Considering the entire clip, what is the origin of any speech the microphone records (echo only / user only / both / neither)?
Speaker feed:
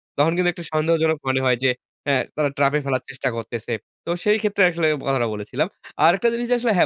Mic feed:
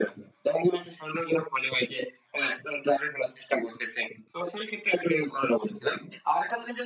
echo only